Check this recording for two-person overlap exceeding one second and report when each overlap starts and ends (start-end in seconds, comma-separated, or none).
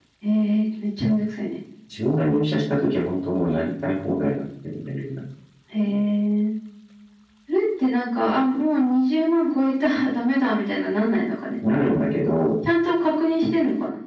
none